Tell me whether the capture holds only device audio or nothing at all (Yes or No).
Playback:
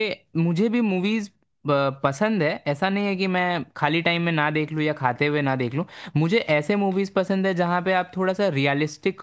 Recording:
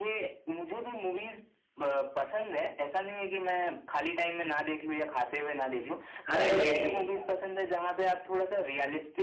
No